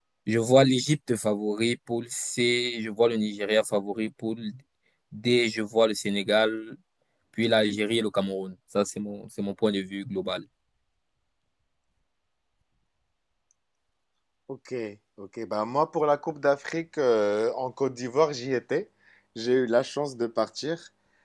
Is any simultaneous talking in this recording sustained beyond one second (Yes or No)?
No